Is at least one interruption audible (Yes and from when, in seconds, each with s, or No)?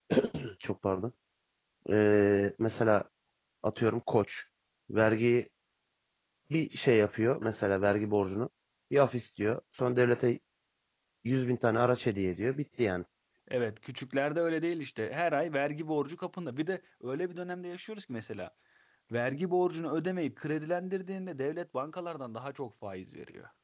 No